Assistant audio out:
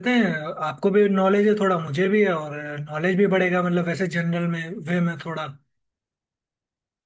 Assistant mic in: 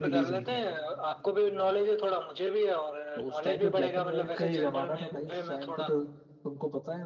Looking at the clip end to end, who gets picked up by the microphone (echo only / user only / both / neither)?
both